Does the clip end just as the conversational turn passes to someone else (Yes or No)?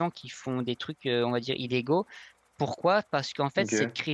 No